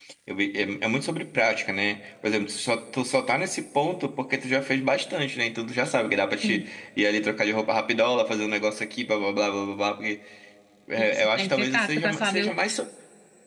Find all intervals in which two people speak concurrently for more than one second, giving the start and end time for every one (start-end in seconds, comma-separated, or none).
11.0-12.5